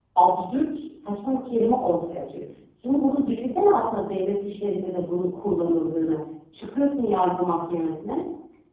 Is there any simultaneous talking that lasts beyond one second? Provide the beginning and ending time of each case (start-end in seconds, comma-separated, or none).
none